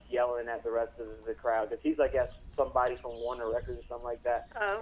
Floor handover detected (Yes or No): No